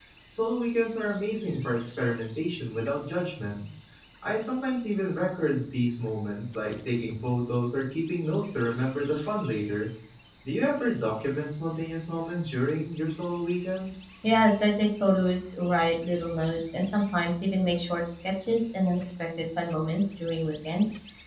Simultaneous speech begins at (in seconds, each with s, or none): none